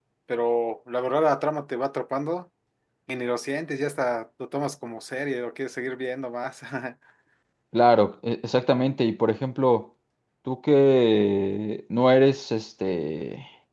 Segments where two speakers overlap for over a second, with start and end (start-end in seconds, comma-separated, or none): none